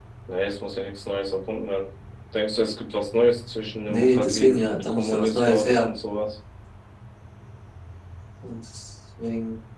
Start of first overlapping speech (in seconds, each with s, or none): 3.8 s